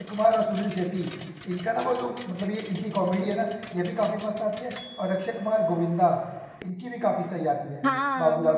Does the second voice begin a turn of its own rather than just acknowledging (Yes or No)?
Yes